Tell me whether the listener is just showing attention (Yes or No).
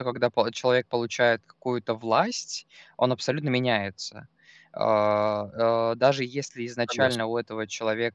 Yes